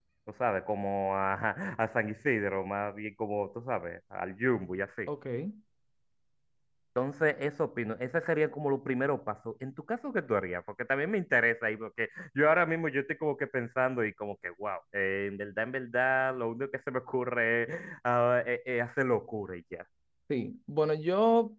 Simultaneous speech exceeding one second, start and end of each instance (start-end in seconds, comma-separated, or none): none